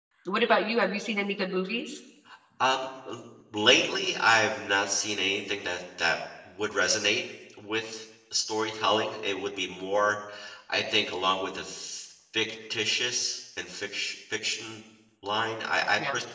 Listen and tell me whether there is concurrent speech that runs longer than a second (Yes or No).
No